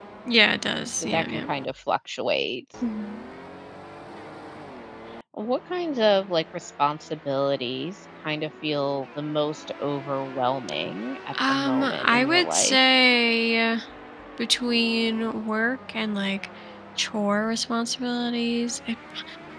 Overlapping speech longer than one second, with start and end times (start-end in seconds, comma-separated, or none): 11.5-12.8